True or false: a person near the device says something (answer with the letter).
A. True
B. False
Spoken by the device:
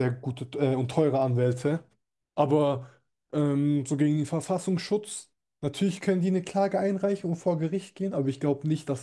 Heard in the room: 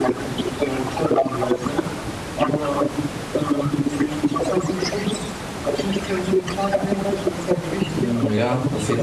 A